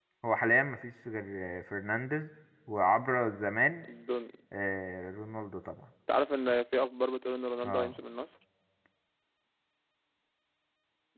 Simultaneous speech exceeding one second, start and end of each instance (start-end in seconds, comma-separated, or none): none